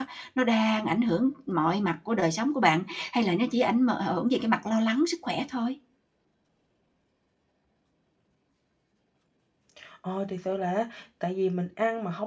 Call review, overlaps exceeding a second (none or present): none